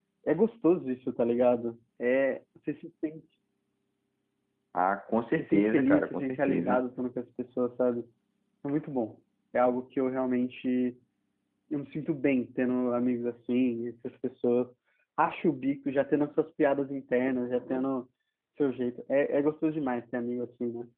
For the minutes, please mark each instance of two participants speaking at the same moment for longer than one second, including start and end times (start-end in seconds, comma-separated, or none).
5.4-6.8